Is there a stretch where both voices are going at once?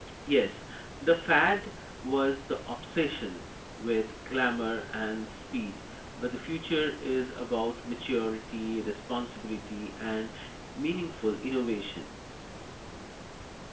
No

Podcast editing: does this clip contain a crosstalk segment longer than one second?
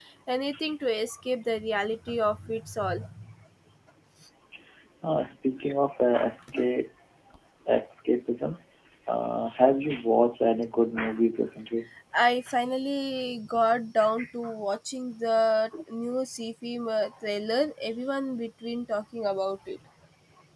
No

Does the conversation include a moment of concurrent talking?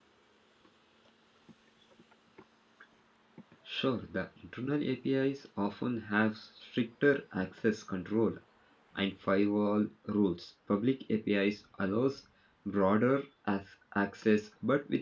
No

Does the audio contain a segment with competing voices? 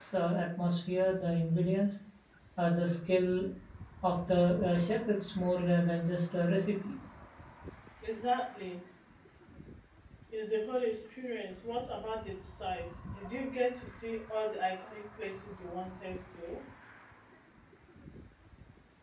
No

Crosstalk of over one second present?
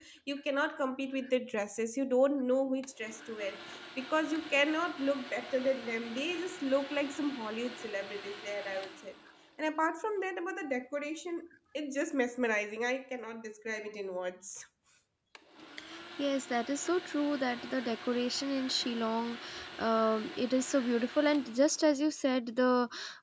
No

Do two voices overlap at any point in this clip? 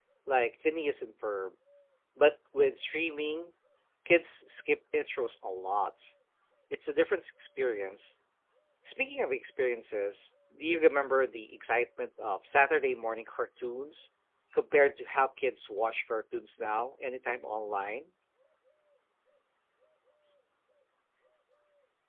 No

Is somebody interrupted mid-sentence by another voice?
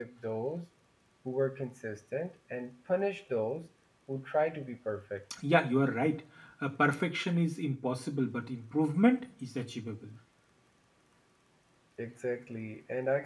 No

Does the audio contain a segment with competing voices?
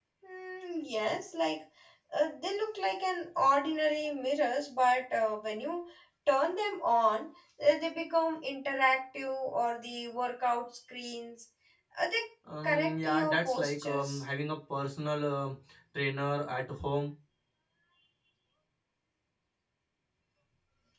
Yes, from 12.6 s

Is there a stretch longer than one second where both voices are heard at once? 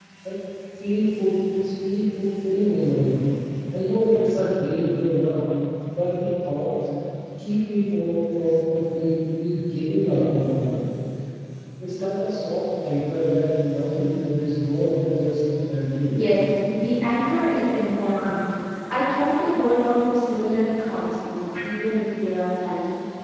No

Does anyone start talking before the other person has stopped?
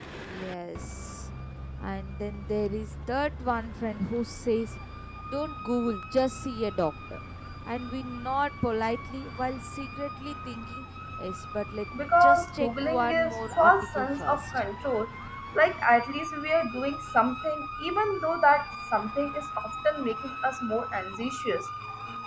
Yes, from 11.9 s

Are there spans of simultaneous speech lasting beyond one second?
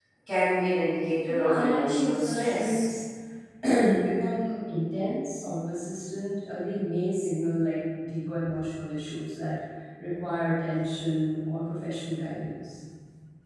Yes, from 1.3 s

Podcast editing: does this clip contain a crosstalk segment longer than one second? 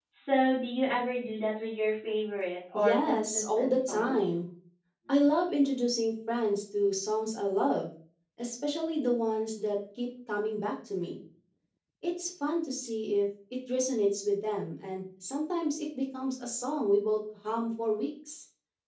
Yes, from 2.7 s

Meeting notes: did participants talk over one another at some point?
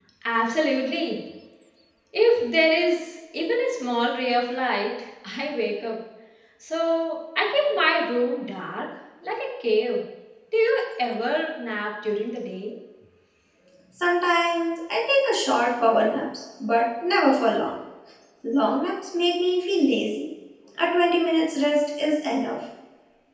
No

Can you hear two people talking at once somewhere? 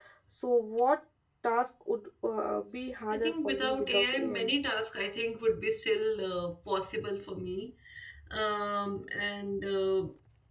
Yes, from 3.1 s

